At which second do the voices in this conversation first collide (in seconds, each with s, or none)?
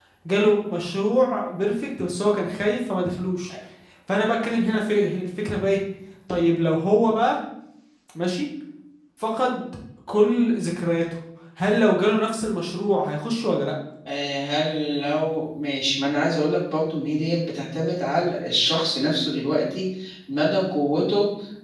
none